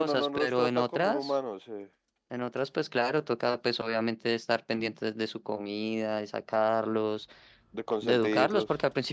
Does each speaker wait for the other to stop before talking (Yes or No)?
No